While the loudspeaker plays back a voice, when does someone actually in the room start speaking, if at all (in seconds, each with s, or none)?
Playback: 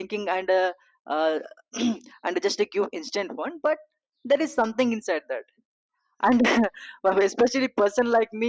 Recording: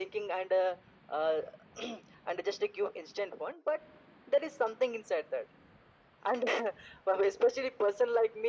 none